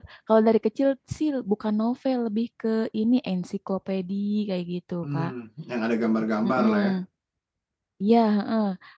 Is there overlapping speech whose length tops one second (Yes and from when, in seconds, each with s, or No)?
No